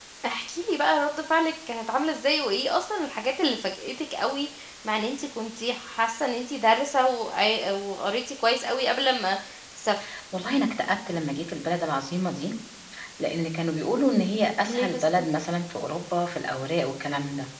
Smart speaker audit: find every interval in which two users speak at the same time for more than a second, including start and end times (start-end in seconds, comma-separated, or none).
none